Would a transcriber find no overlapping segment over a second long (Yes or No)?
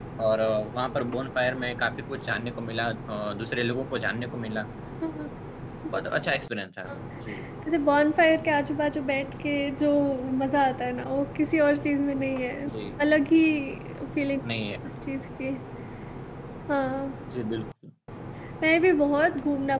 Yes